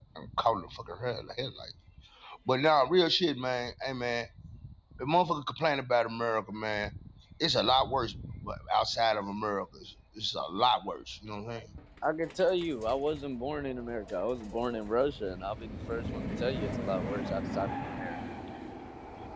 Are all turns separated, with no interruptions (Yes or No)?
Yes